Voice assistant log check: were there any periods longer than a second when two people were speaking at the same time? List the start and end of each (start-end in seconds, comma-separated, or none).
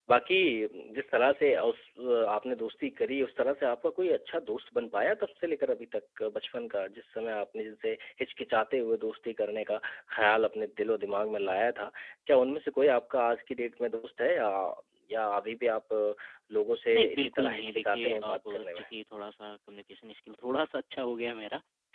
16.9-18.8